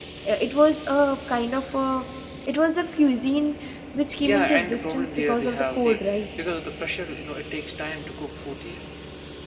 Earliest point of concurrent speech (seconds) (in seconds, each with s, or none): 4.2 s